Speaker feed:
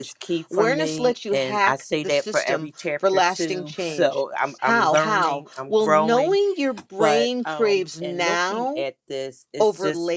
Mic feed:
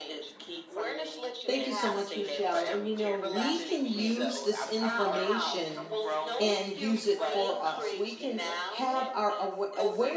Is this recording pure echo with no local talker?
No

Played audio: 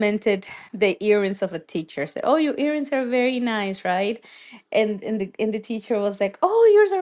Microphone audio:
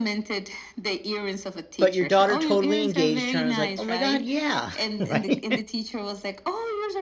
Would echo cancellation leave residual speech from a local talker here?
Yes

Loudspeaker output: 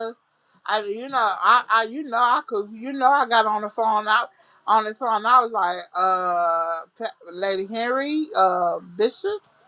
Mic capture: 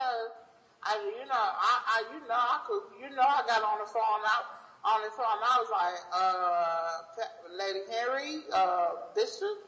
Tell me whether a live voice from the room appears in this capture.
No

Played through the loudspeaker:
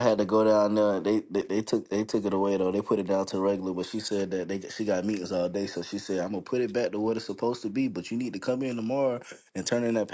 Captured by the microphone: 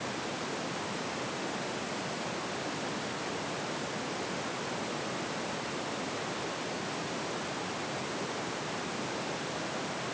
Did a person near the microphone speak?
No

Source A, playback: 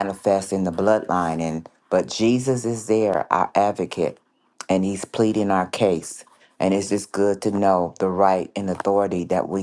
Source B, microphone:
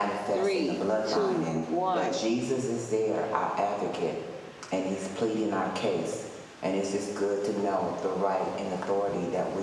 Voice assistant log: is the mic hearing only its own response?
No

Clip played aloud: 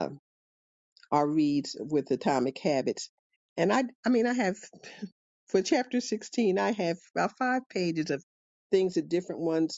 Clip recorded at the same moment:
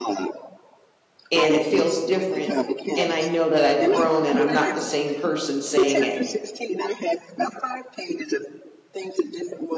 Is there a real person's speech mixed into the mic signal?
Yes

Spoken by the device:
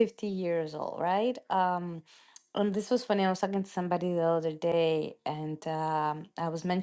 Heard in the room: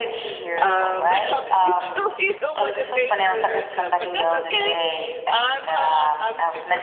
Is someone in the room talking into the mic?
Yes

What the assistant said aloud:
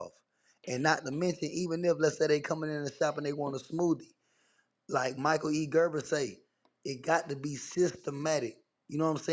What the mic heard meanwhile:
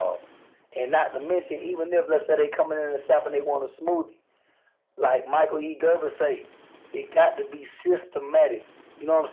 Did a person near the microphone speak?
No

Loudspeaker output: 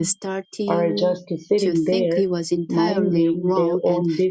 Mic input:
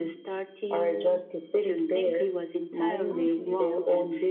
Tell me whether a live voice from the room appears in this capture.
Yes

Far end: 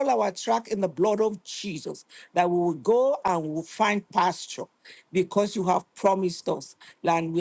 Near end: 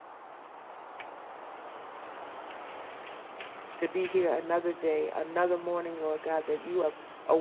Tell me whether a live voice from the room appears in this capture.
Yes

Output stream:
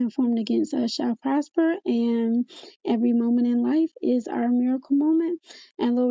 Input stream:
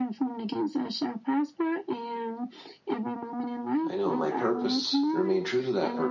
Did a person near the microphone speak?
Yes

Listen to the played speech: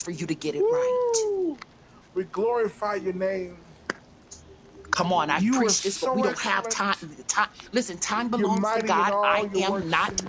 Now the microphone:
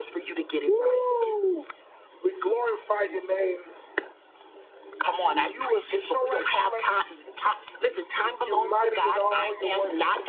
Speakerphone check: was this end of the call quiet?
Yes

